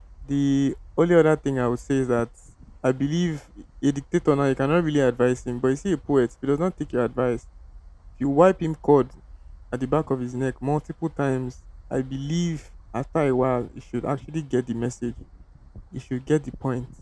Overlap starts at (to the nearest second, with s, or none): none